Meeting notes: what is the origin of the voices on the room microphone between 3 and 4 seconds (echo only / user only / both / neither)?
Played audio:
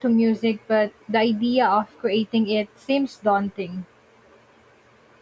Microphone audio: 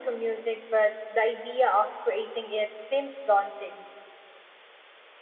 echo only